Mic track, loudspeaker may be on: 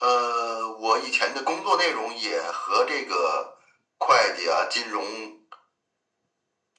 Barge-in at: none

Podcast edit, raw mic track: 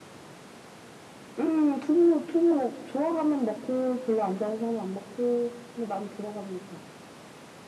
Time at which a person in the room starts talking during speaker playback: none

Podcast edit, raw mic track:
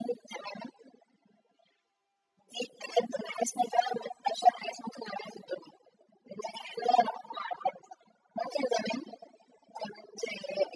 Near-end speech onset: none

